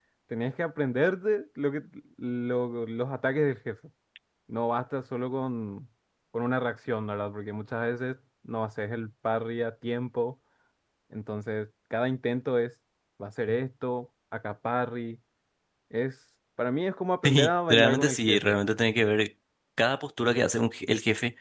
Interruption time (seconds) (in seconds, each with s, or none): 17.2 s